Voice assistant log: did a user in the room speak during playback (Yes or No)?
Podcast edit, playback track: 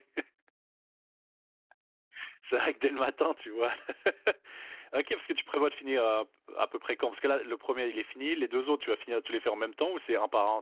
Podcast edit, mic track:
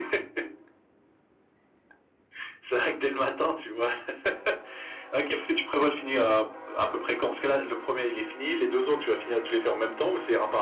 No